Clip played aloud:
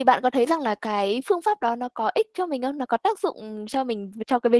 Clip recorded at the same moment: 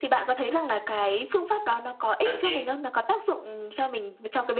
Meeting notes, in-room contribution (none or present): present